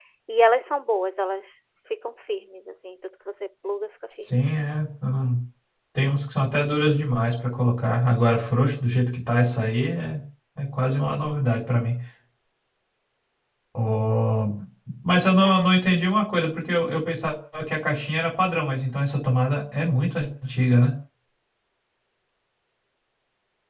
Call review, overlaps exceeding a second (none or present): none